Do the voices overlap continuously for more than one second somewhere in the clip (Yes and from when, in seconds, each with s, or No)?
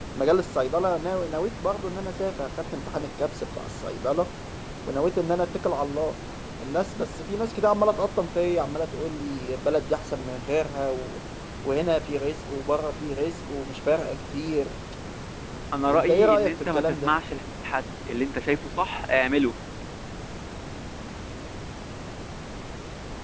Yes, from 15.9 s